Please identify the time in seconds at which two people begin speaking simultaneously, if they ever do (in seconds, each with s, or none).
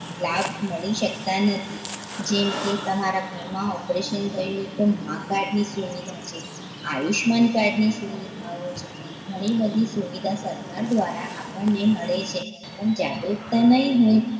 none